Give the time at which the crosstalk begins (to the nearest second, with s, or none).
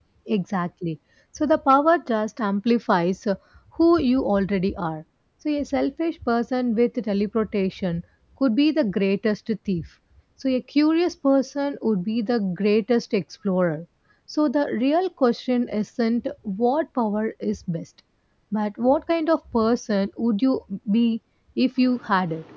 none